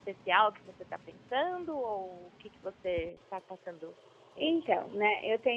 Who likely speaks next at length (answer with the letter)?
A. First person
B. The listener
B